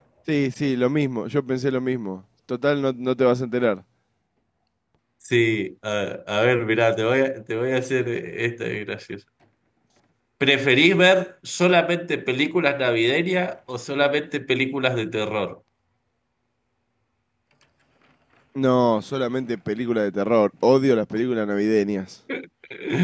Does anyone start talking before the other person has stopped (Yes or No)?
No